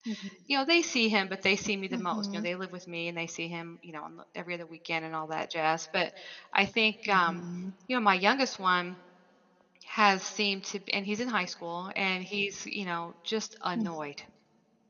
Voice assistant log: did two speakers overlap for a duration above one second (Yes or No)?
No